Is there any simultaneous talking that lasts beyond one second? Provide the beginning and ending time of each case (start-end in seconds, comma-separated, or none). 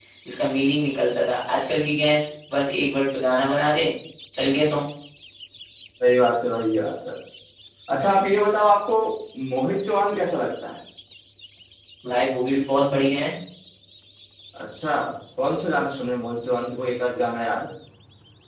none